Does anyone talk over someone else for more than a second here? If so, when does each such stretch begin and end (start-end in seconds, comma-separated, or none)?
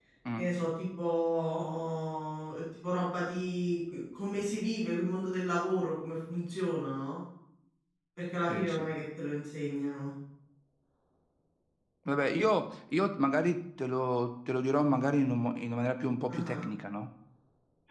none